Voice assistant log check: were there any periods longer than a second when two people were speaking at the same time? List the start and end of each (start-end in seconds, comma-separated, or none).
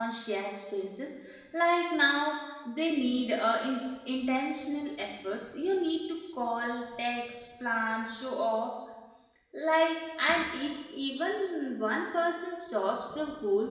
none